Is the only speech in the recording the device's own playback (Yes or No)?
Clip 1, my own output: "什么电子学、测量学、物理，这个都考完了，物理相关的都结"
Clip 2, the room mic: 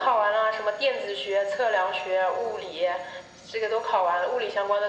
Yes